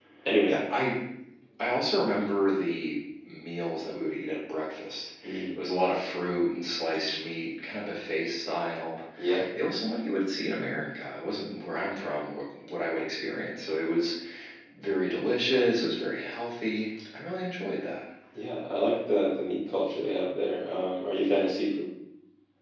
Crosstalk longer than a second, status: none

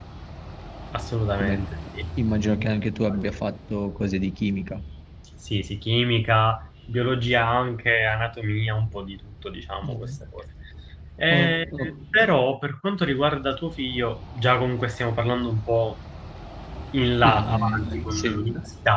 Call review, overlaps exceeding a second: present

